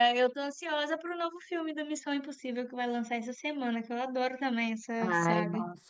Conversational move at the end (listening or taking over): taking over